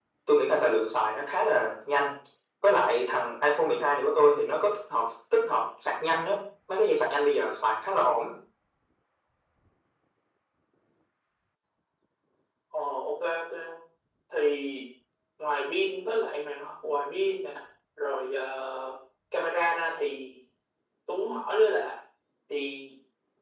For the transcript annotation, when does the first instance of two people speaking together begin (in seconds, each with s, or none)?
none